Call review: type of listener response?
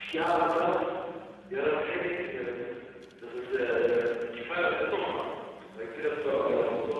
listening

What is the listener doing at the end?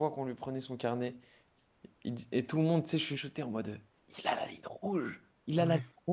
listening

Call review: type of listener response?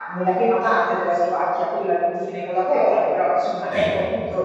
listening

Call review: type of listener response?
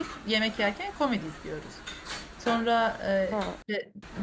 listening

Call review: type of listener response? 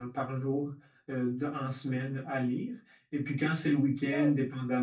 listening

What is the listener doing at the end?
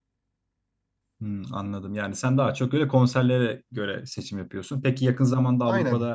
listening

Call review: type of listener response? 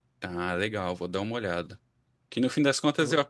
listening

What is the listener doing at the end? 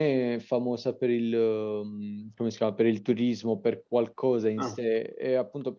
listening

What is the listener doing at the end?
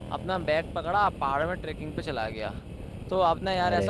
listening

